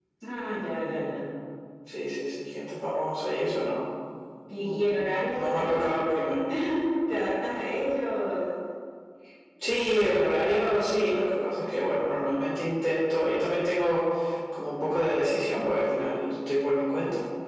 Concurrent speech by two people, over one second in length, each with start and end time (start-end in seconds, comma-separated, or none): 4.6-6.0